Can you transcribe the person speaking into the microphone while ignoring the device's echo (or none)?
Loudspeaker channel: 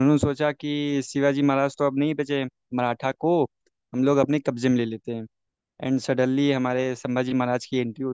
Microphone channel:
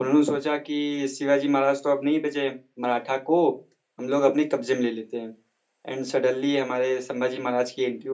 none